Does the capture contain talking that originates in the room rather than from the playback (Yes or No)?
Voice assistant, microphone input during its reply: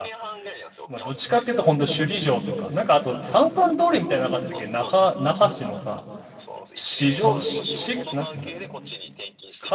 Yes